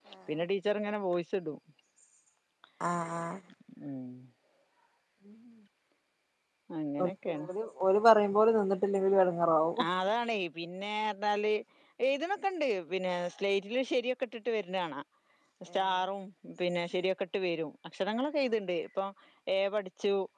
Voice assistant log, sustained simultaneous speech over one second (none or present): none